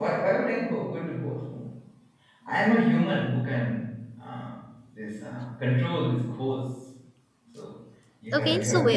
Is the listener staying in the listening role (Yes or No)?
No